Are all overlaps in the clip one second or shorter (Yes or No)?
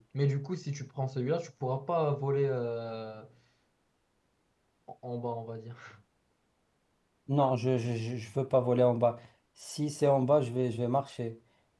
Yes